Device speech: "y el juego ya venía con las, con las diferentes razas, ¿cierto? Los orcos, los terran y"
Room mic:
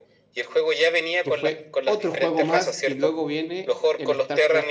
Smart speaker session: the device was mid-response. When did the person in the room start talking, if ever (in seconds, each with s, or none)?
1.2 s